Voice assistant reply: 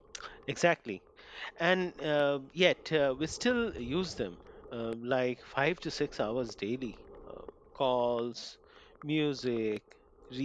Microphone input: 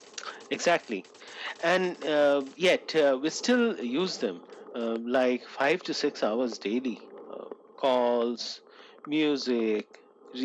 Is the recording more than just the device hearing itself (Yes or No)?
No